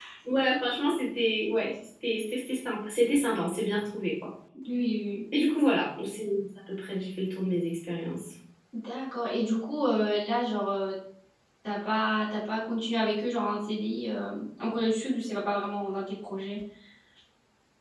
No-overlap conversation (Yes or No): Yes